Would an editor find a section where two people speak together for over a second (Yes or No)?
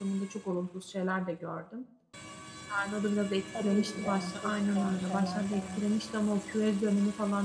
Yes